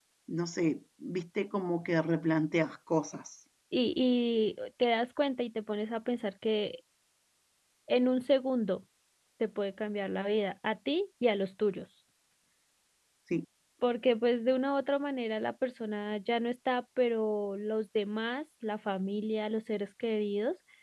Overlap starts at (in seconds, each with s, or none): none